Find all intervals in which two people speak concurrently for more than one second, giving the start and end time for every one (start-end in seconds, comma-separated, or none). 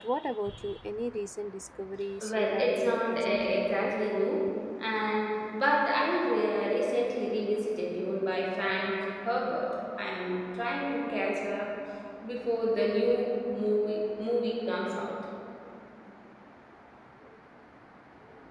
2.2-3.9